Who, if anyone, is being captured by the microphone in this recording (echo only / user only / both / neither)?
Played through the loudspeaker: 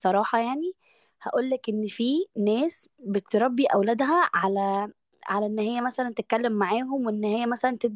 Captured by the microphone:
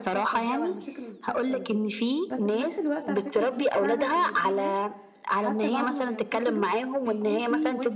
both